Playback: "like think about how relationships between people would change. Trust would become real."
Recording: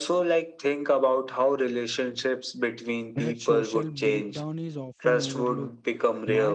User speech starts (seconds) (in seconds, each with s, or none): 3.1 s